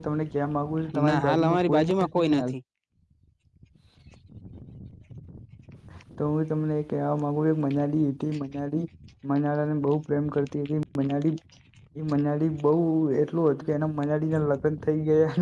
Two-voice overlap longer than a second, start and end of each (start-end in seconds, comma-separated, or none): 1.1-2.5